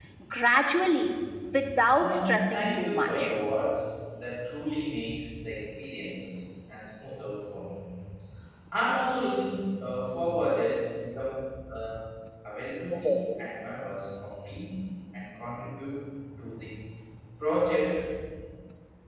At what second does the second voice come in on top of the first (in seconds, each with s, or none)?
1.9 s